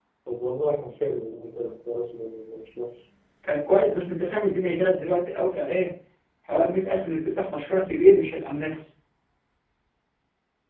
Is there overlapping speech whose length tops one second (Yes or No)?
No